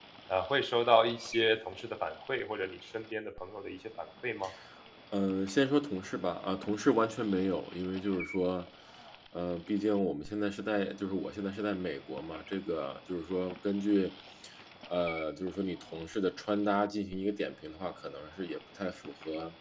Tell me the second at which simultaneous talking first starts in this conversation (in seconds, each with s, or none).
none